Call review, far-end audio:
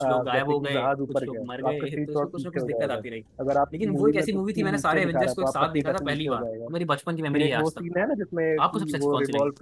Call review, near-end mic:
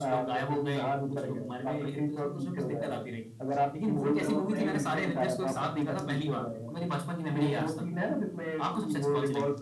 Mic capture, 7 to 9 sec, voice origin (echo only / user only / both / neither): echo only